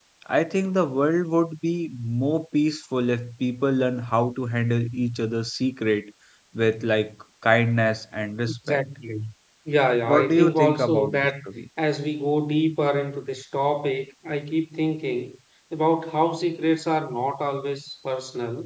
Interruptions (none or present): present